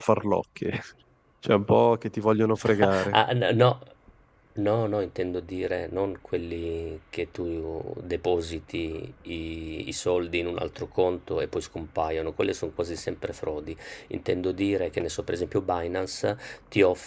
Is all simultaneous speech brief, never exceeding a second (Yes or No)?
Yes